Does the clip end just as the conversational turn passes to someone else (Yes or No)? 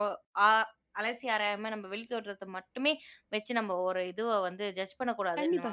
Yes